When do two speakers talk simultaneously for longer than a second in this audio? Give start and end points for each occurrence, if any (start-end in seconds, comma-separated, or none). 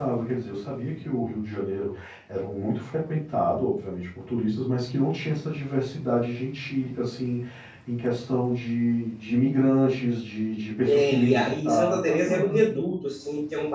10.9-12.7